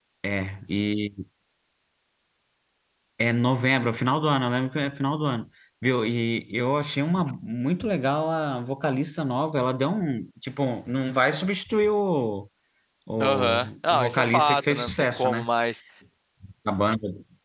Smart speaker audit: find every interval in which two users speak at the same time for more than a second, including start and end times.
13.2-15.5

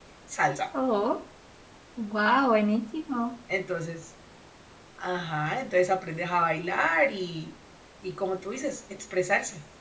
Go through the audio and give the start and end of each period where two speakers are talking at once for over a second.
none

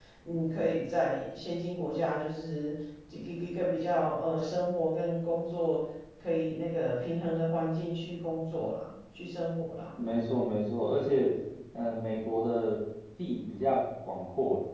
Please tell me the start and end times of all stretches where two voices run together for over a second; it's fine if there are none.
none

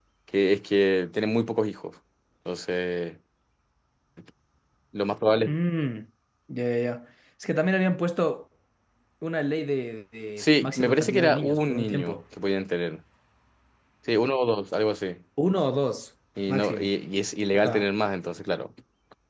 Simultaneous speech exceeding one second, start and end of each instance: 10.4-12.2

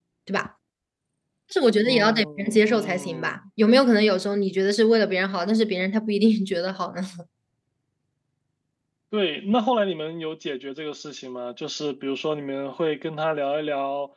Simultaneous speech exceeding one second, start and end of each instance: 1.8-3.4

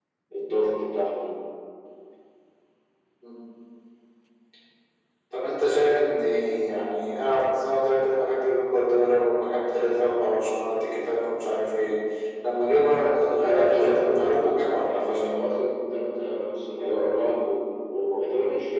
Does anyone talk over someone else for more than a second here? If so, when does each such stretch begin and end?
13.4-15.3

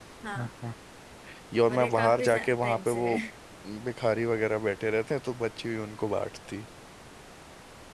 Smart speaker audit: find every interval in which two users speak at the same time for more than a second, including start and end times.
1.7-3.2

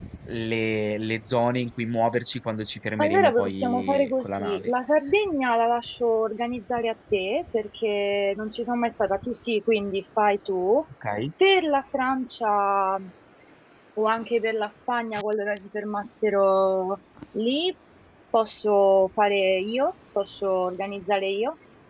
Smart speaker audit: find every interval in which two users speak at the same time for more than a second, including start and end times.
3.0-4.7

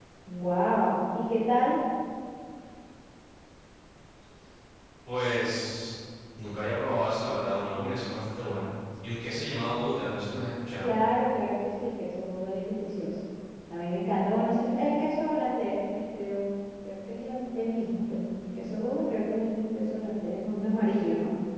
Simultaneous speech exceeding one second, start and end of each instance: none

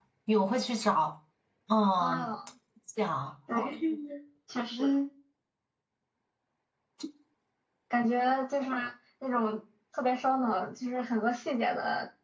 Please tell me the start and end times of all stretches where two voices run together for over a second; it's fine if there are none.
none

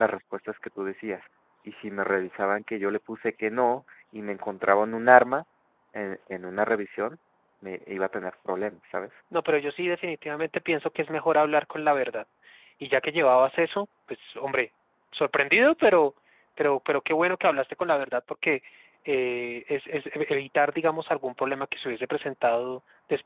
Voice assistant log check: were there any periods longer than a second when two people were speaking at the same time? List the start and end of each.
none

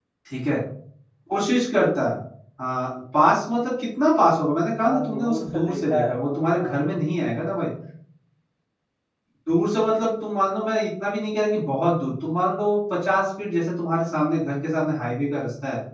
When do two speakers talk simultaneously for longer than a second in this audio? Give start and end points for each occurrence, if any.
4.8-6.9

